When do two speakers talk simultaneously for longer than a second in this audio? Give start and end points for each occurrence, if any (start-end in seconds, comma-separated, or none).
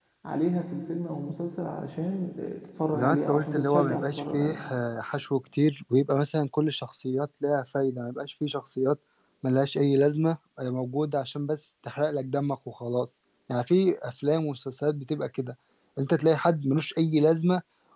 2.9-4.6